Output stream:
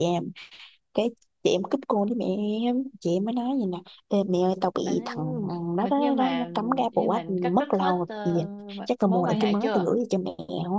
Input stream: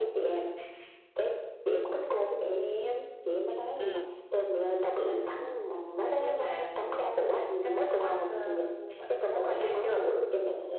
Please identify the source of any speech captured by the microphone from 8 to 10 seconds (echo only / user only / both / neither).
echo only